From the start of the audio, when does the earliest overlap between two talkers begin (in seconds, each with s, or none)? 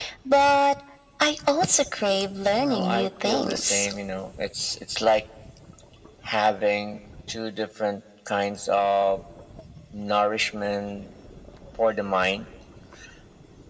2.5 s